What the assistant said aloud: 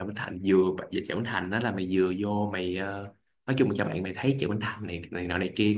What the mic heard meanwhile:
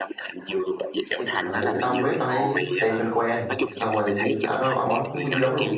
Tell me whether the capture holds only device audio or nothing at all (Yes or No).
No